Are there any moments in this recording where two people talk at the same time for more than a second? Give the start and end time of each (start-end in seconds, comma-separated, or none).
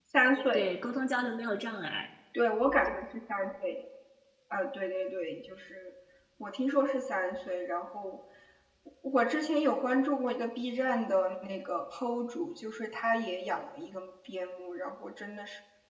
none